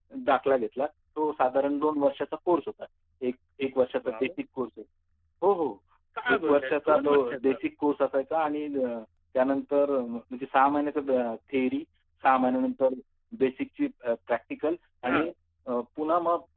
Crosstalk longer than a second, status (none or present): present